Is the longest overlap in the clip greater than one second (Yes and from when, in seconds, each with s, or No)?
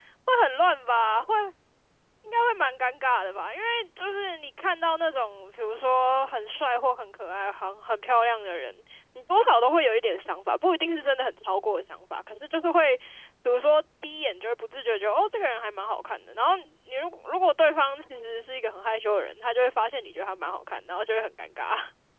No